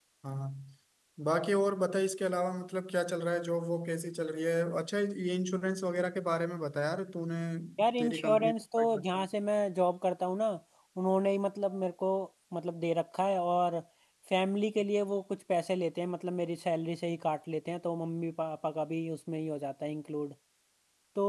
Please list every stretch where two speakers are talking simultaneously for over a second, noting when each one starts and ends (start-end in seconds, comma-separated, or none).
8.0-9.2